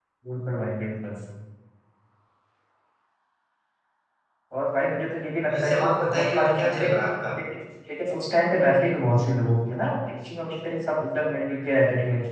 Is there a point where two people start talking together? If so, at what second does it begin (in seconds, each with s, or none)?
5.5 s